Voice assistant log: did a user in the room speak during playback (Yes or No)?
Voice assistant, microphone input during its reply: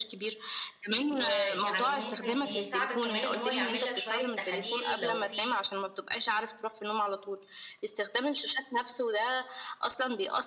Yes